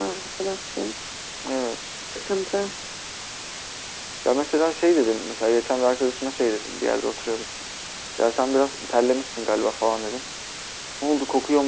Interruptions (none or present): none